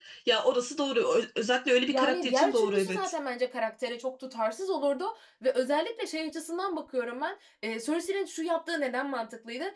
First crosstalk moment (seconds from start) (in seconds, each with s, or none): 1.9 s